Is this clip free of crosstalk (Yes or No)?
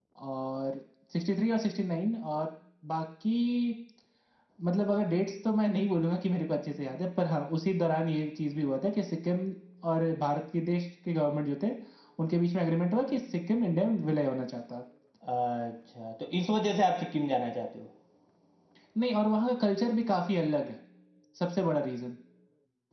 Yes